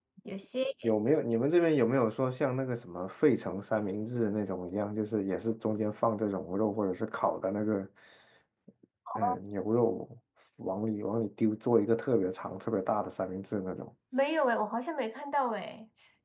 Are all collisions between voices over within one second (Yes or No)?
Yes